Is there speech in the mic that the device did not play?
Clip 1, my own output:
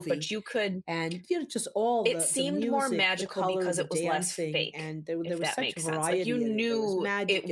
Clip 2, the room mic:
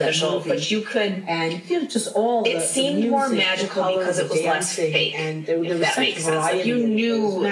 No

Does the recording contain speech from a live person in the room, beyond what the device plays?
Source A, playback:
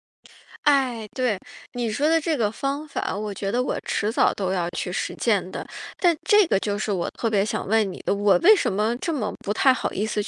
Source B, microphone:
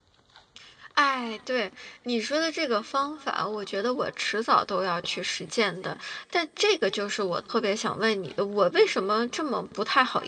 No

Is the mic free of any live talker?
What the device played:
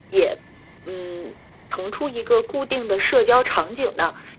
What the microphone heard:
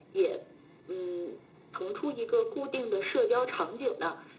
Yes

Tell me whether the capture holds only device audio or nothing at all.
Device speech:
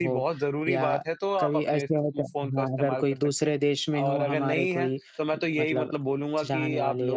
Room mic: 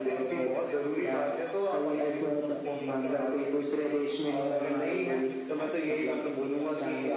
No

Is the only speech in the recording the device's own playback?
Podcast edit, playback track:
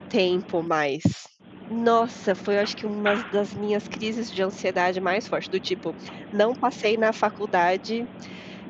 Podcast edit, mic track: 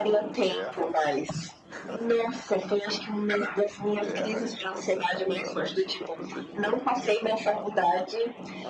No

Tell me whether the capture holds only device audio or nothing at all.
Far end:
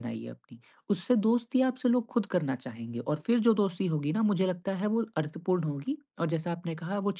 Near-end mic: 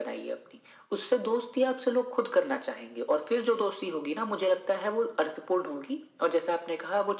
Yes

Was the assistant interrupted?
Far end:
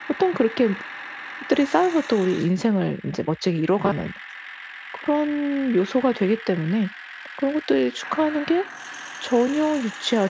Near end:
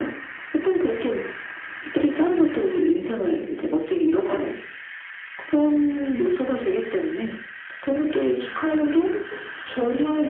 Yes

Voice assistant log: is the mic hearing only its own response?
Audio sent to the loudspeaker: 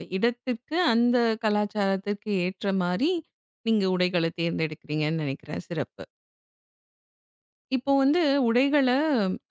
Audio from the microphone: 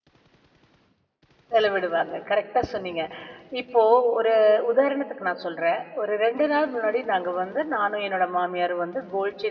No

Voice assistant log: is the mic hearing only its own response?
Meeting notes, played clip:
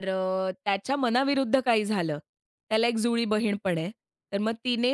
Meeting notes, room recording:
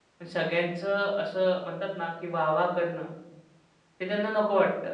No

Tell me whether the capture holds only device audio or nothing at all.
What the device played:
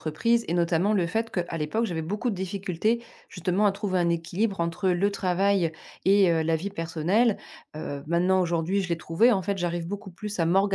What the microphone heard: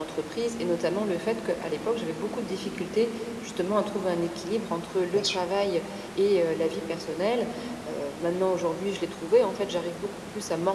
No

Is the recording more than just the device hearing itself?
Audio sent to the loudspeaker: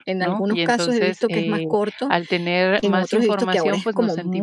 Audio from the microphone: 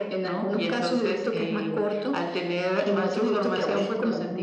No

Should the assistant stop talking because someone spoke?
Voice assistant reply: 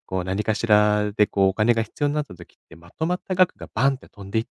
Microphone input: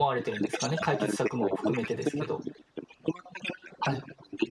Yes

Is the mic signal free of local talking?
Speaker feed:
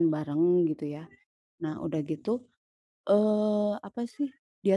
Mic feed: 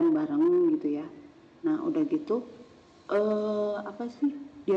Yes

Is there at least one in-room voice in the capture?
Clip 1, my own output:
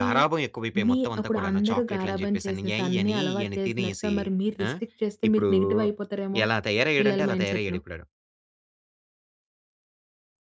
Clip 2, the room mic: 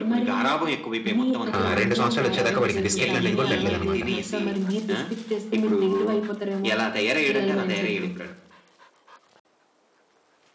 Yes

